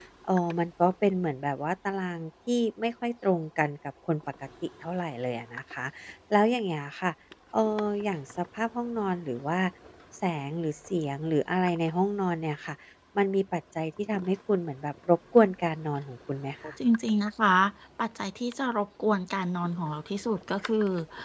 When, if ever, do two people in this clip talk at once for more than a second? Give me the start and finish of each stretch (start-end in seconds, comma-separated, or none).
none